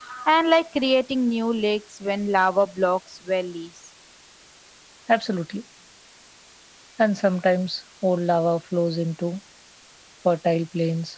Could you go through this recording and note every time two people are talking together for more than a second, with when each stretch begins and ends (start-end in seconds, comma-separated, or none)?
none